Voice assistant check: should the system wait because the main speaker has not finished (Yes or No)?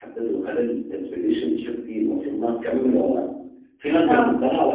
Yes